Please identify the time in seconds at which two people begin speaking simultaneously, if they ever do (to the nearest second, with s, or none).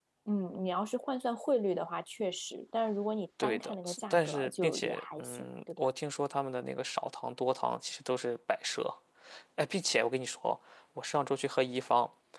3 s